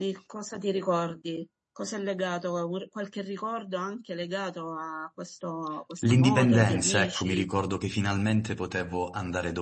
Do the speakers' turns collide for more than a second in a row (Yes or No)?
Yes